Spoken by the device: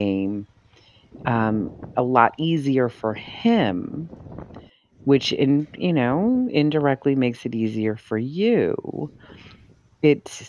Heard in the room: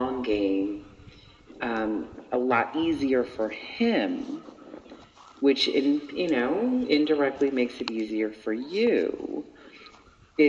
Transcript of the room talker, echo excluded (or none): none